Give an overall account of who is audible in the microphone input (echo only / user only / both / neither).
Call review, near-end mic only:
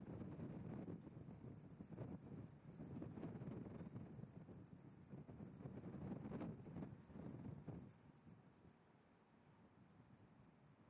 neither